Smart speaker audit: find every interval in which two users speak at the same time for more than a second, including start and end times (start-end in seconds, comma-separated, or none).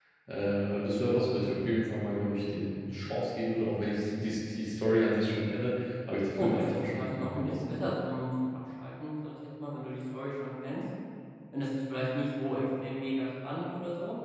6.4-7.8